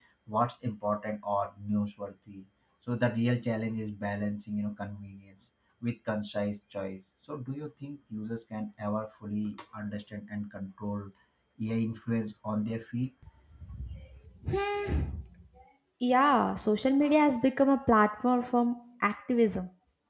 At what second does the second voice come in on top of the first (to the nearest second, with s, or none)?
none